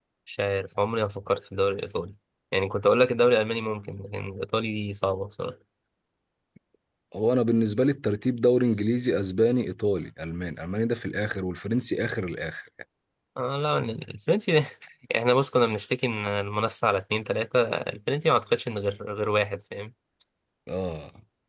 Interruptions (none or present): none